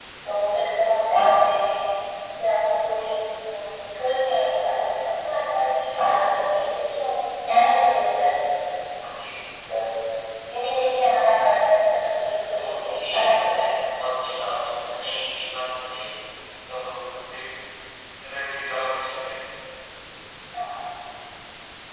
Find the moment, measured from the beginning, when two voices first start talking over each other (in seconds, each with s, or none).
12.6 s